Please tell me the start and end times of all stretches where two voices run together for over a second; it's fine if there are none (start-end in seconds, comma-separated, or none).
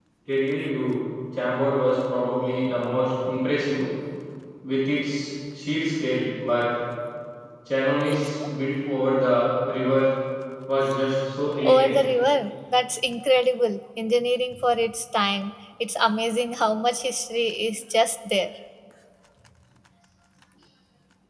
none